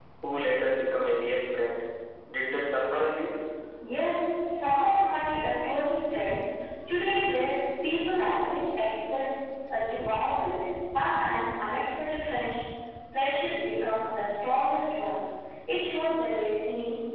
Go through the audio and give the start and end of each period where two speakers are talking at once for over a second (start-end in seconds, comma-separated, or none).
none